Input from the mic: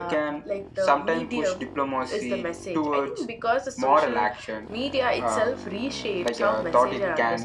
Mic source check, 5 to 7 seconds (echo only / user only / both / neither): echo only